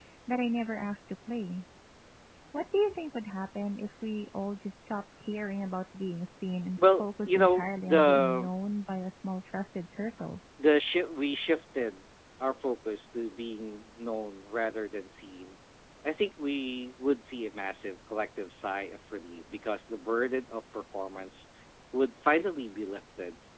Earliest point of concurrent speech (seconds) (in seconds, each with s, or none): 6.8 s